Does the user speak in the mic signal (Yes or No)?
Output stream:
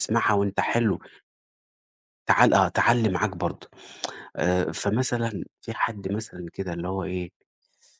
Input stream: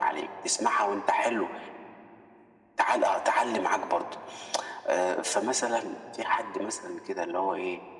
No